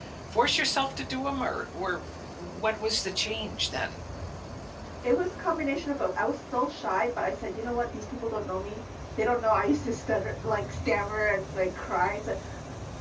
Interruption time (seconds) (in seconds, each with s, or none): none